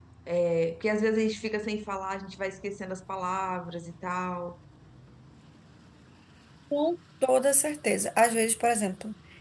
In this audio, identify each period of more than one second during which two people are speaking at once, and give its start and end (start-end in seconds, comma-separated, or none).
none